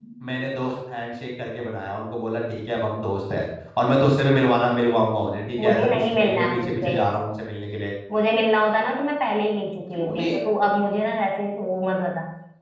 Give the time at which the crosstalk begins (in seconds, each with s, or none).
5.6 s